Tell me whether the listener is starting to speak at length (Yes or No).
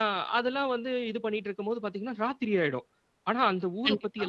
No